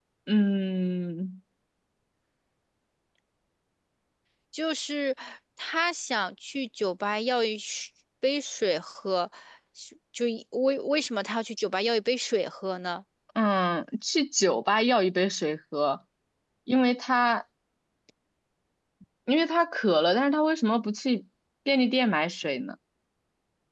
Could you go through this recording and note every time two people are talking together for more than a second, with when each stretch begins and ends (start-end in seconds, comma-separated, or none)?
none